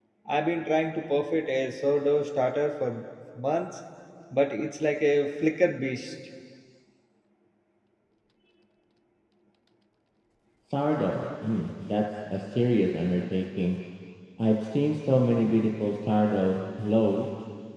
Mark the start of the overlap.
none

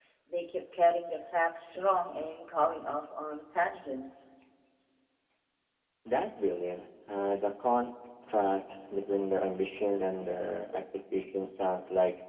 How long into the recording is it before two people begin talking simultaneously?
none

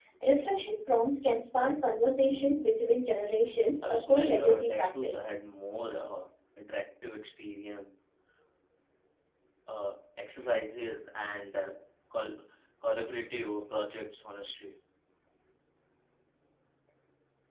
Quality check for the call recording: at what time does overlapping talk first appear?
4 s

